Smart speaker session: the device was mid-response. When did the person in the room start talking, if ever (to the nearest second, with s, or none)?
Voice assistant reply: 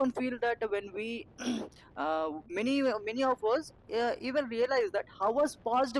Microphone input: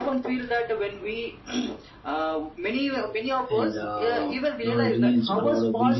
3 s